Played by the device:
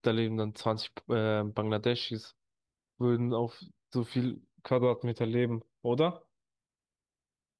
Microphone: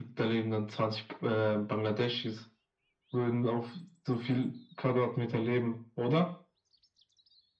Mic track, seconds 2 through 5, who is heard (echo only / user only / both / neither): echo only